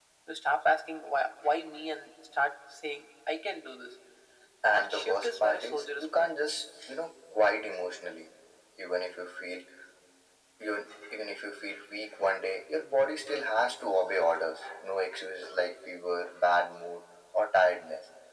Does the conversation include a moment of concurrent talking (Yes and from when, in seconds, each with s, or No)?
Yes, from 4.7 s